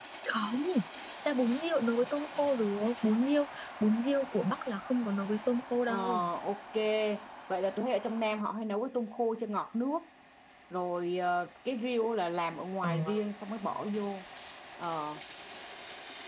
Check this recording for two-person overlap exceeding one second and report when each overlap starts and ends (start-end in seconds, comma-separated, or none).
none